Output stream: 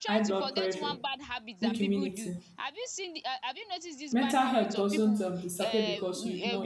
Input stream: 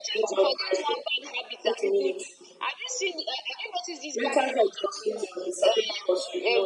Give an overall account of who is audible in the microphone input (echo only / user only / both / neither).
echo only